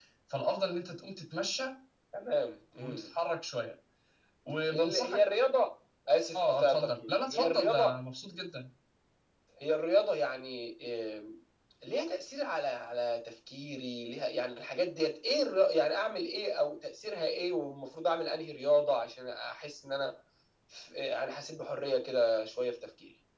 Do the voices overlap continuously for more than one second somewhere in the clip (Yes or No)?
Yes